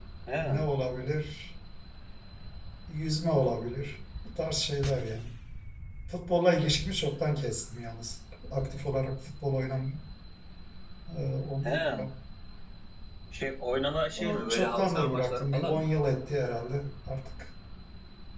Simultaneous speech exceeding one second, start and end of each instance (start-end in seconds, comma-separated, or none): 14.2-15.9